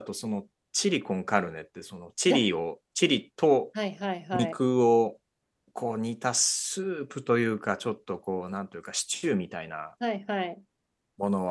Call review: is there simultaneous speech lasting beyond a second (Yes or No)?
No